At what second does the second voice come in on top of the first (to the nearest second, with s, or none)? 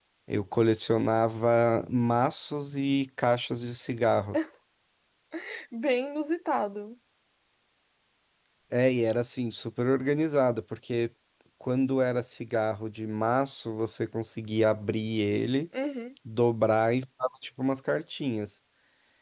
none